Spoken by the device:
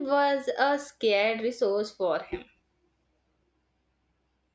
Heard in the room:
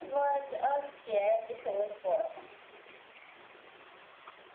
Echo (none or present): present